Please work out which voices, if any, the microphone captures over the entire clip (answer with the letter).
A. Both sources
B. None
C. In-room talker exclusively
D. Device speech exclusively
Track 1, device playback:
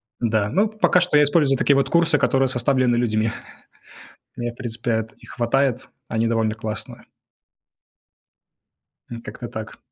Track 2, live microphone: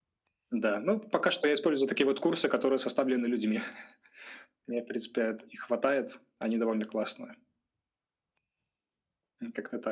D